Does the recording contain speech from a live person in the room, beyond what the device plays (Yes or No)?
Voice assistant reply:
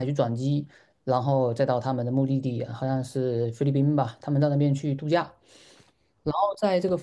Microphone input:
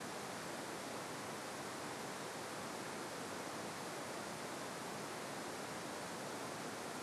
No